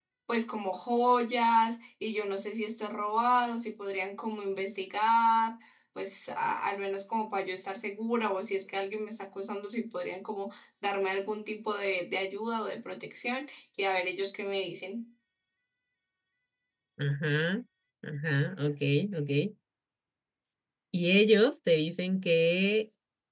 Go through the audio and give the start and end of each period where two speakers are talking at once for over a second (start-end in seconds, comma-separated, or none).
none